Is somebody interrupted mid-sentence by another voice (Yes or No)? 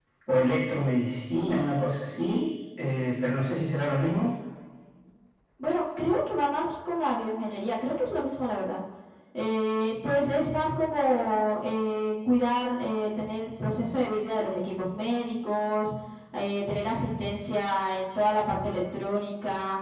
No